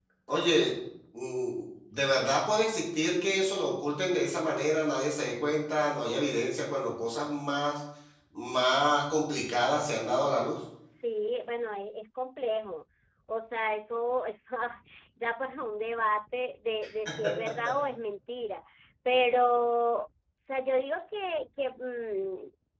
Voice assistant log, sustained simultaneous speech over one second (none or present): none